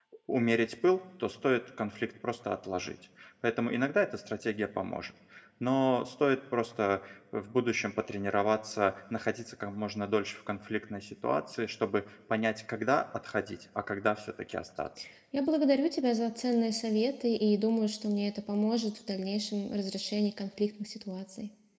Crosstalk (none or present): none